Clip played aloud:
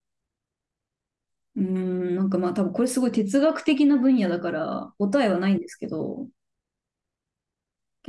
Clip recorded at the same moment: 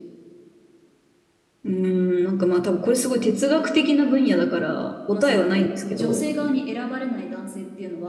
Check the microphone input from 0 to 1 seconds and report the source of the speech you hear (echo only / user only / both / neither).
neither